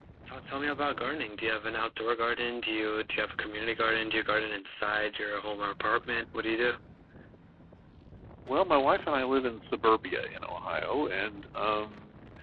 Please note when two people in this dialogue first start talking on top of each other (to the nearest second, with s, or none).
none